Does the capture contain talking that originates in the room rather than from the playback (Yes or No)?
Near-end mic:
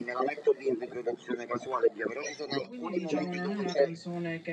Yes